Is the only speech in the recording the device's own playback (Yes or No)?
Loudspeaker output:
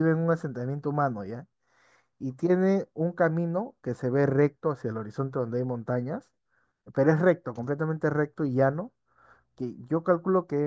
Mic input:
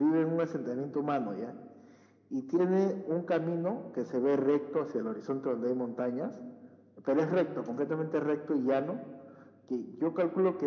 Yes